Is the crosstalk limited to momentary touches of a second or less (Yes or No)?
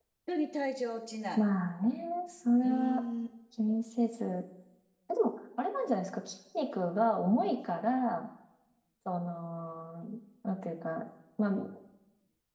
Yes